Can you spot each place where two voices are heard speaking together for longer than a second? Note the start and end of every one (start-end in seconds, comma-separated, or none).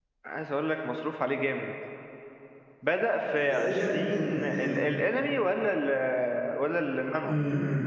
3.4-4.9